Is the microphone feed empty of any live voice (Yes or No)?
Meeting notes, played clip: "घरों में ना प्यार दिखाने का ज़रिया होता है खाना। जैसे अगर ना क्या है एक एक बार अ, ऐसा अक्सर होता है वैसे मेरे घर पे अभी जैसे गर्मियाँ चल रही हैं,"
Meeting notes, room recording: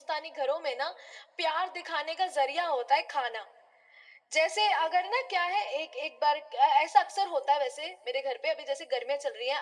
Yes